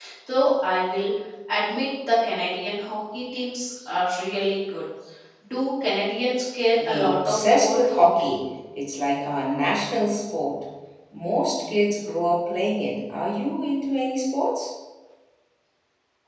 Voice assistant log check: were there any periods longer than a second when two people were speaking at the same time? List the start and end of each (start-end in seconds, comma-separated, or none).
6.8-8.3